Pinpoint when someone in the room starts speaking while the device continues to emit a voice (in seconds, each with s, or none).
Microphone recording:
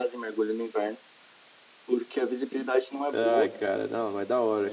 3.1 s